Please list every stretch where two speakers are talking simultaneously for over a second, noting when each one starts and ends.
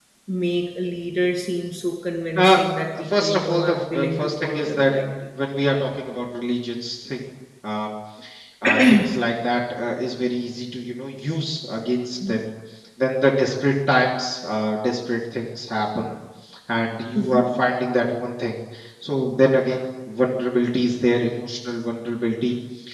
3.2-4.9

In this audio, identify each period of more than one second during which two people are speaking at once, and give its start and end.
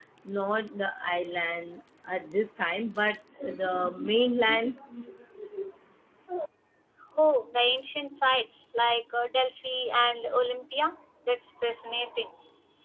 none

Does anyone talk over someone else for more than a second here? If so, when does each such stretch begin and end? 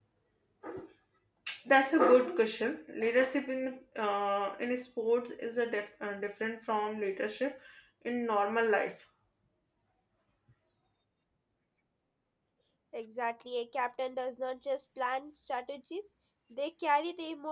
none

